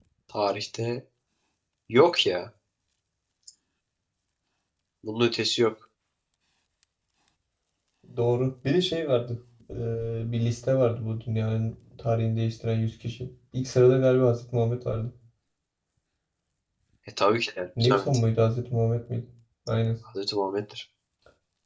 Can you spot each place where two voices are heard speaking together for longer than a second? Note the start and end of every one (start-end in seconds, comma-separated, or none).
none